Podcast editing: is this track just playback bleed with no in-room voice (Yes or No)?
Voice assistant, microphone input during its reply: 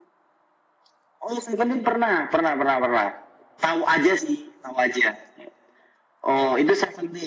Yes